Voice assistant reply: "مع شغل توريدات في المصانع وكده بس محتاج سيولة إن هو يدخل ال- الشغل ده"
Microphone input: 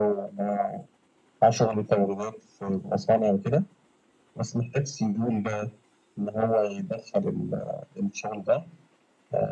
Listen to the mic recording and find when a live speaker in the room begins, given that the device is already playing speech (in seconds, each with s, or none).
none